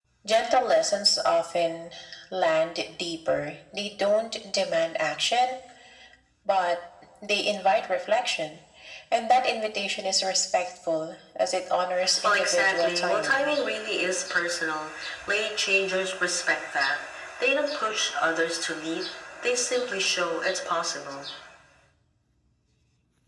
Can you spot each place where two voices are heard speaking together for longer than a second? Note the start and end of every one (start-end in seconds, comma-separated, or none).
12.2-13.6